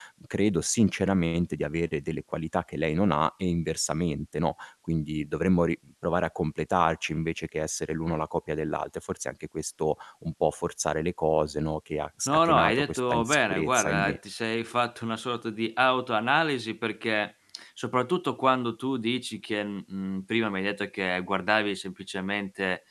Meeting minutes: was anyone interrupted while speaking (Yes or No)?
Yes